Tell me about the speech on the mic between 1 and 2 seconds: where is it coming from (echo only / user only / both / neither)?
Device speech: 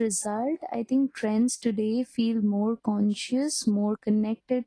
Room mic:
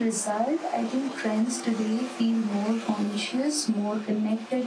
echo only